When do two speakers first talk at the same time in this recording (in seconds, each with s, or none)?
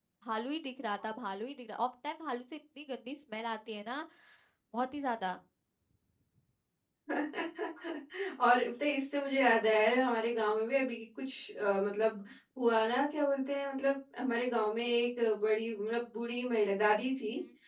none